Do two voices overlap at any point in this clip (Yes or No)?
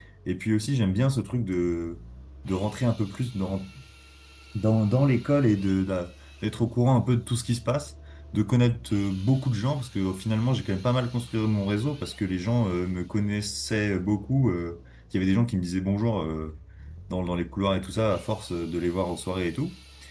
No